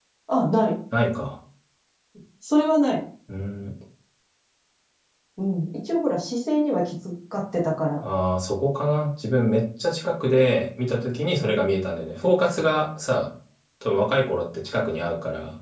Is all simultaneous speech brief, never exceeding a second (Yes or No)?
Yes